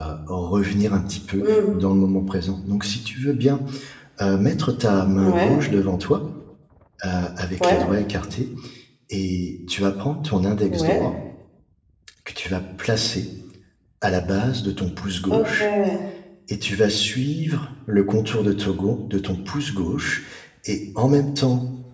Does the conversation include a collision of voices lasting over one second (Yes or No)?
No